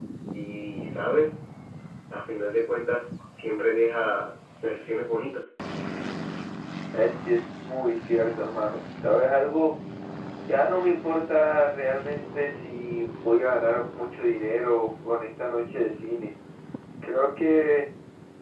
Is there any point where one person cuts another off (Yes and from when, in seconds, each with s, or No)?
No